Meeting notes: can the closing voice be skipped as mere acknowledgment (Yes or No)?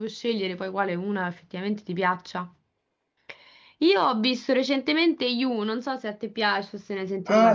No